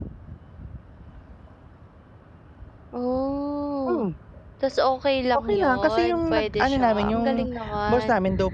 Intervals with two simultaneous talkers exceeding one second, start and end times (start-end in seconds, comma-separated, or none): 5.5-7.3